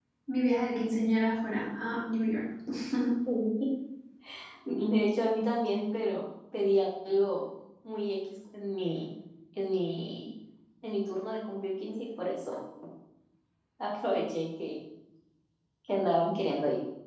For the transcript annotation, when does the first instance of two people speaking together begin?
none

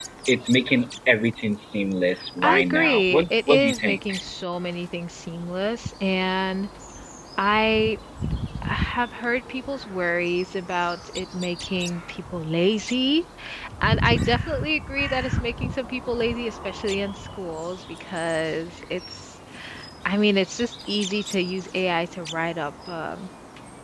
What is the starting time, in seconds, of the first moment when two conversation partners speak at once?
2.4 s

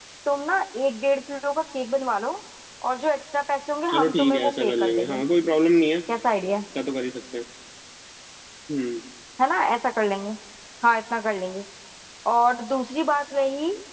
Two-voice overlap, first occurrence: 3.9 s

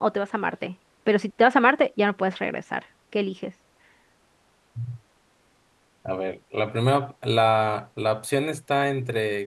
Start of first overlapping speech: none

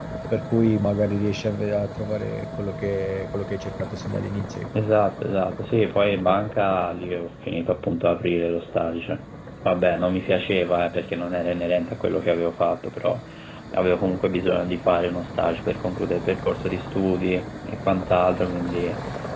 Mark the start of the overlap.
none

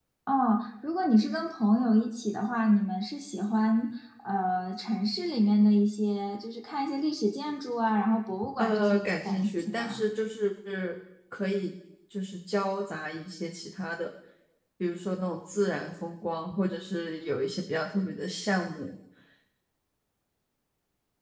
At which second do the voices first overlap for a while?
8.6 s

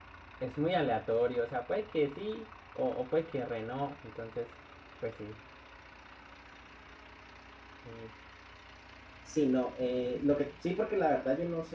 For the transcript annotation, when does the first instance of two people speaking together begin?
none

